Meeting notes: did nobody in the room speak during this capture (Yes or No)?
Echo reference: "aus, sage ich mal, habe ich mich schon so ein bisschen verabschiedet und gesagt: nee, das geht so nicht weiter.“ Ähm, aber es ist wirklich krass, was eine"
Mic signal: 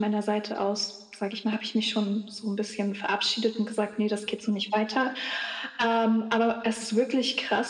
Yes